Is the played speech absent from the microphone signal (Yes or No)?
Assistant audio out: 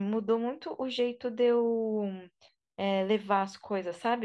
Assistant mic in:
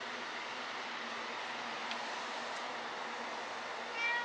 Yes